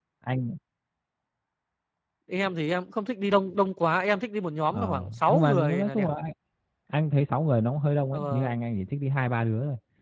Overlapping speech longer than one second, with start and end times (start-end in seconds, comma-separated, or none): 4.7-6.1